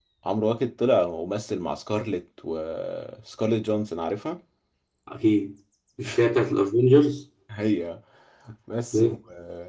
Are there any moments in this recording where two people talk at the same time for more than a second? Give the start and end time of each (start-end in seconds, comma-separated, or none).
none